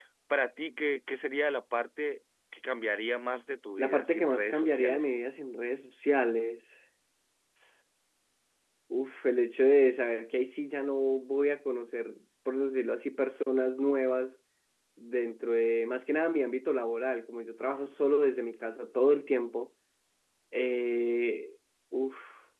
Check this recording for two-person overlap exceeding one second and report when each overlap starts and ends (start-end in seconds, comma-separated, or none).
3.8-5.1